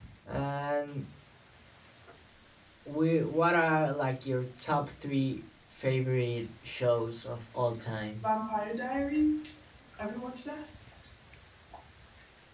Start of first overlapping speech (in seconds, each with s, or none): none